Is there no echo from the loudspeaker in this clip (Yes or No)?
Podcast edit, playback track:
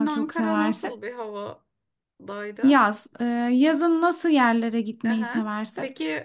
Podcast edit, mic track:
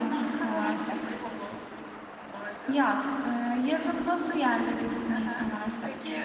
No